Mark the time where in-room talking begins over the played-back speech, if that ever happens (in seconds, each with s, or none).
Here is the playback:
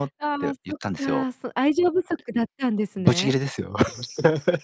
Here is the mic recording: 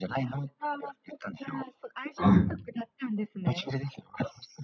2.1 s